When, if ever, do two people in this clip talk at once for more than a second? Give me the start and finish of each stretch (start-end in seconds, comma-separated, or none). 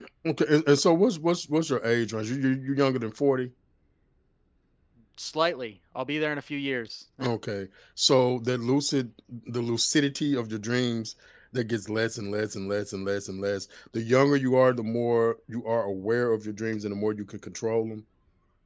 none